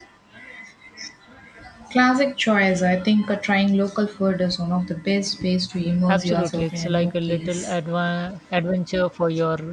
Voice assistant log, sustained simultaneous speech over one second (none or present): present